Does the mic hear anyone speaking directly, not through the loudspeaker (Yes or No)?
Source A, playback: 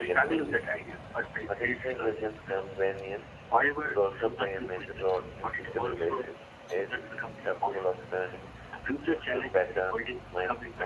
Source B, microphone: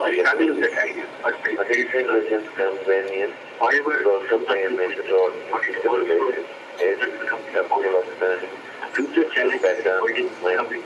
Yes